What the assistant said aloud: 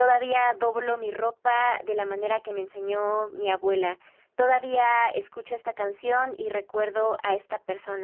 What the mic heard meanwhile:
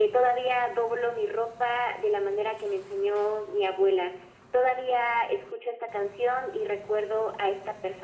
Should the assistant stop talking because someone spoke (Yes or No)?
No